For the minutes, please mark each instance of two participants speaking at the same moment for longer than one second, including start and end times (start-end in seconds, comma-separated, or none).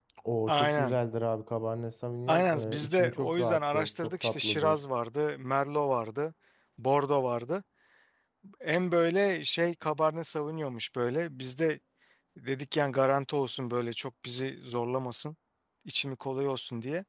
2.3-4.8